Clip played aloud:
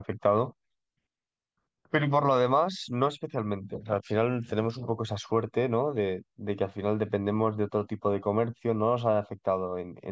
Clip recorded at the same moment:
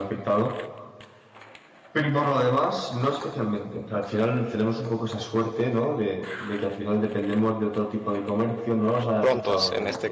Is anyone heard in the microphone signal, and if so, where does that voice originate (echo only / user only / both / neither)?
both